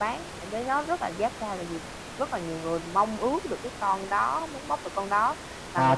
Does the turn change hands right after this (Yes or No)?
Yes